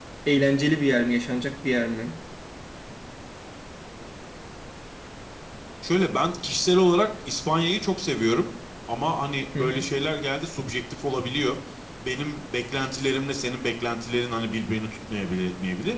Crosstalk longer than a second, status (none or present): none